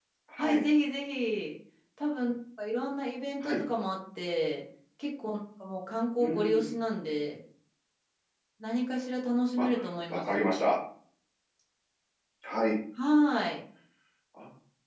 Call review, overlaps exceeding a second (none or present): none